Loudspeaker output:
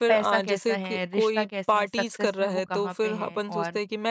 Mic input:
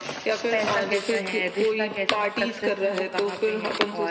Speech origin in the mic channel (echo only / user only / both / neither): echo only